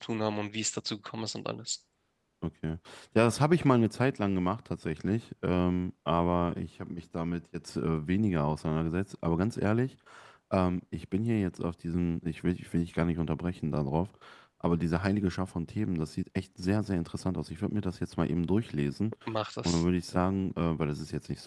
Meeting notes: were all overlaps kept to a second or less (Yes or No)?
Yes